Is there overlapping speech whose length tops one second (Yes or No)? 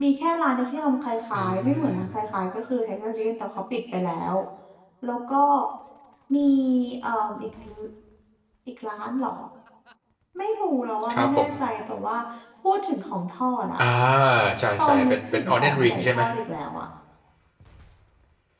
Yes